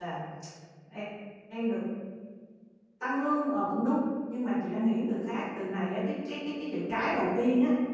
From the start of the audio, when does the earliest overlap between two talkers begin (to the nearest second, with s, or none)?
none